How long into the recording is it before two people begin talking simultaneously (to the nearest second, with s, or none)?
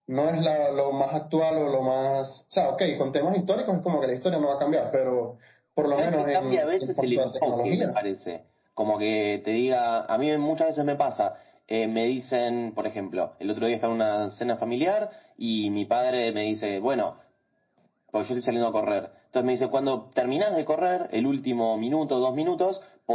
6 s